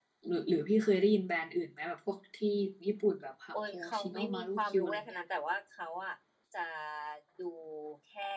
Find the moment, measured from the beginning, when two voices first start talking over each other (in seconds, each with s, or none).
3.7 s